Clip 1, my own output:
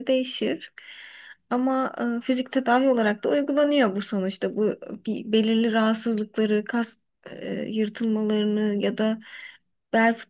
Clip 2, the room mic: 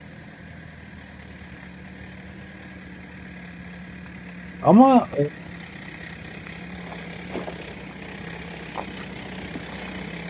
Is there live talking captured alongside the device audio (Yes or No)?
Yes